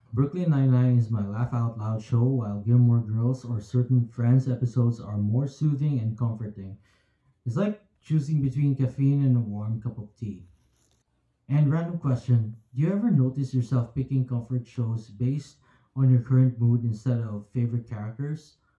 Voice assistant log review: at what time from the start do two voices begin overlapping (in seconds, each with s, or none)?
none